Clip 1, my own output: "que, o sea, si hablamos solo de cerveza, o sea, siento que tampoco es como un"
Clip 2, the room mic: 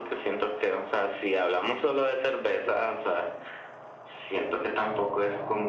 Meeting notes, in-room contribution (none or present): none